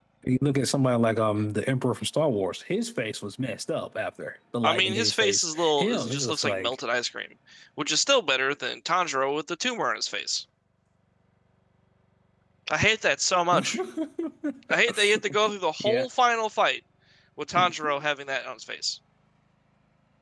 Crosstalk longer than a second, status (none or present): present